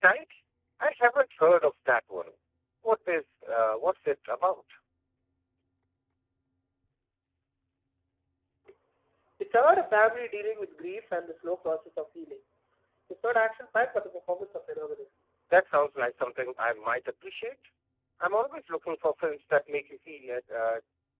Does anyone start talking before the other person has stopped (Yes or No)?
No